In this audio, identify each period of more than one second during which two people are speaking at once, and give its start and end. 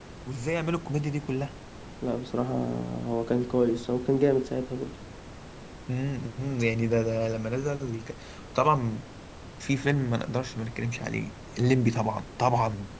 none

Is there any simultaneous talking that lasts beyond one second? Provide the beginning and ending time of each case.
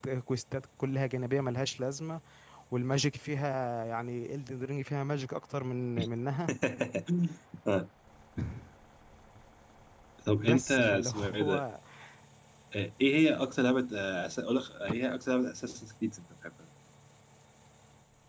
10.4-11.6

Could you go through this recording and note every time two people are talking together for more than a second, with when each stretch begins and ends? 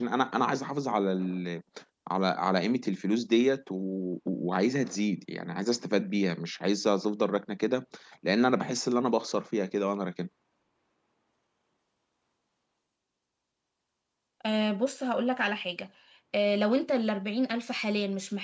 none

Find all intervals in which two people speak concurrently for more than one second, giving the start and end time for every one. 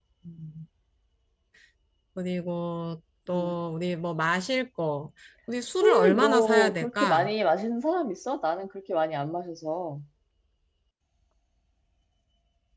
5.8-7.3

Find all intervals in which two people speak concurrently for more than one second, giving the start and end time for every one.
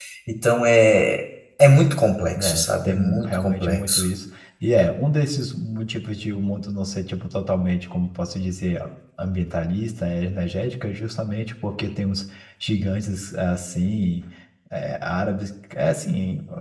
2.4-4.1

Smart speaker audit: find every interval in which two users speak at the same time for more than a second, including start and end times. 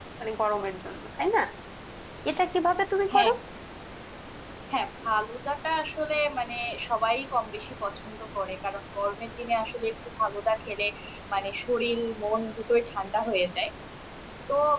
none

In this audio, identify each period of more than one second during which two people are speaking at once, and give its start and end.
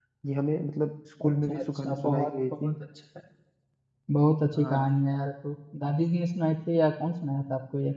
1.2-2.7

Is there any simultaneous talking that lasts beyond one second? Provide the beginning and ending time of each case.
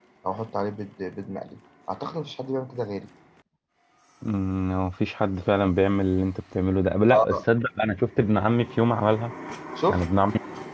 none

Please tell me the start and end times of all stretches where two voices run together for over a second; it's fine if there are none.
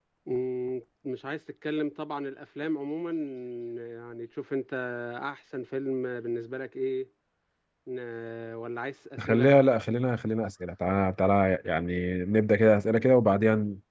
none

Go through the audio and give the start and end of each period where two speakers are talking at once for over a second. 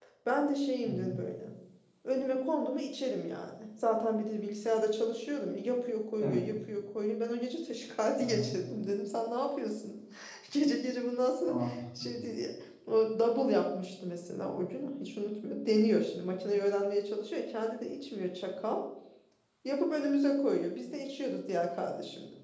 none

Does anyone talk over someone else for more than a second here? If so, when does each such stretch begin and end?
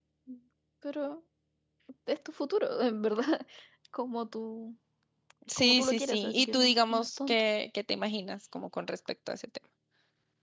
5.6-7.4

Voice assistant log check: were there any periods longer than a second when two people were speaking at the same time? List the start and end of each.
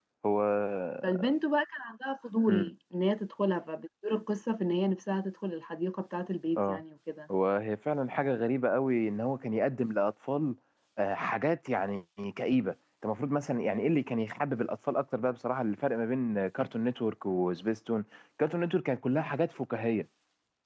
none

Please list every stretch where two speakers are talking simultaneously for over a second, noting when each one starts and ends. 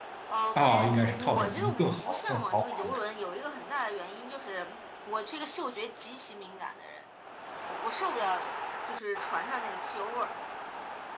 0.6-3.0

